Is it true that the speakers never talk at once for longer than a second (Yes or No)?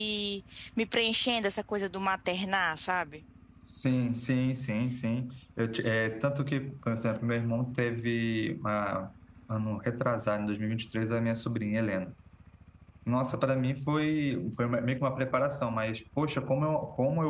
Yes